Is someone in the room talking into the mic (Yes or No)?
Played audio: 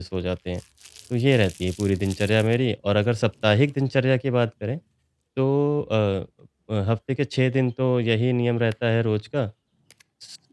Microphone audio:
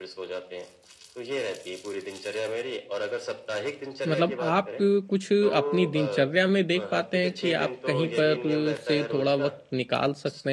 Yes